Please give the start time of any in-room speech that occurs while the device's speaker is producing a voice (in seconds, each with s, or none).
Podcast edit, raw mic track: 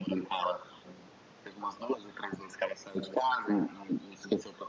none